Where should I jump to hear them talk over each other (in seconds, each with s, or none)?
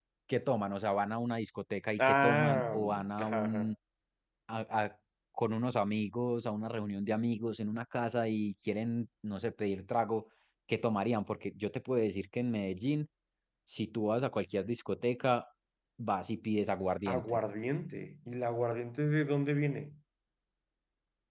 2.0 s